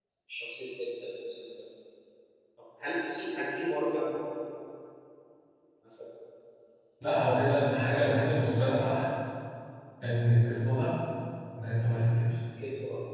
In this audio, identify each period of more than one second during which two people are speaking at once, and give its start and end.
none

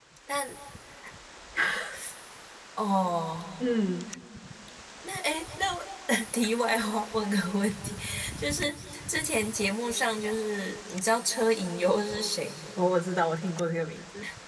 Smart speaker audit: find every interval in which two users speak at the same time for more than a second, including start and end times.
none

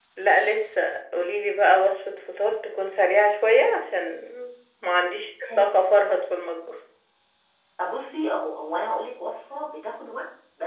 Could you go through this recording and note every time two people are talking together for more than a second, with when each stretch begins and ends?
none

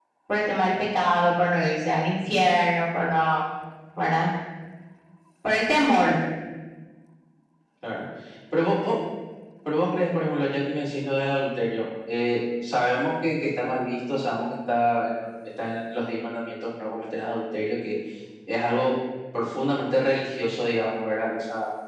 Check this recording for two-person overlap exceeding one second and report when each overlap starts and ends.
none

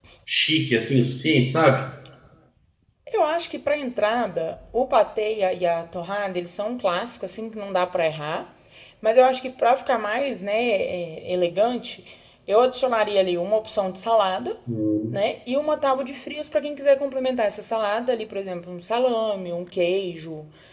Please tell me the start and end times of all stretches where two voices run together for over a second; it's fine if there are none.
none

